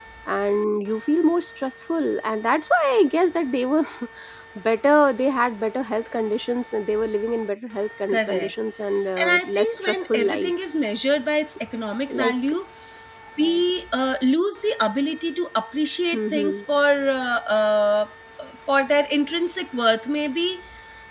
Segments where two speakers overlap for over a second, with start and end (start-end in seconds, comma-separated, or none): 9.2-10.5